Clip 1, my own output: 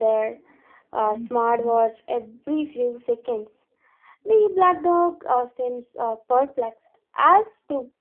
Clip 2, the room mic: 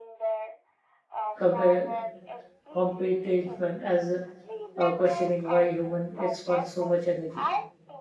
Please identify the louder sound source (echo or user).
user